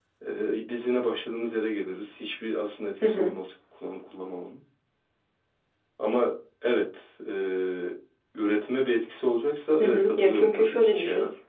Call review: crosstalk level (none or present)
present